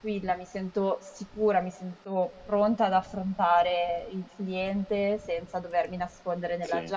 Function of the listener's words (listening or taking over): listening